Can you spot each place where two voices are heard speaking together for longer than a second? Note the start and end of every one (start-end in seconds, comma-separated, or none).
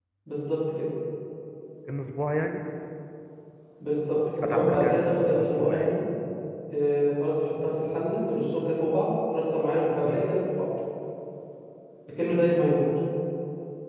4.4-5.9